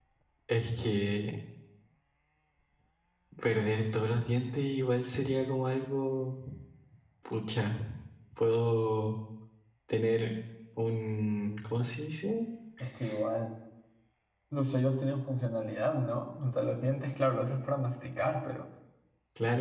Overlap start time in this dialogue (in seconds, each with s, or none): none